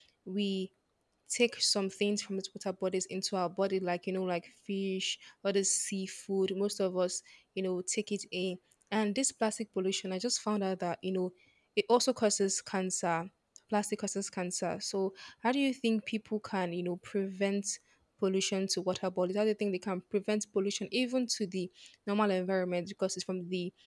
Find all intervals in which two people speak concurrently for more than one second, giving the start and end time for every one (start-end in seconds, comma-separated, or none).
none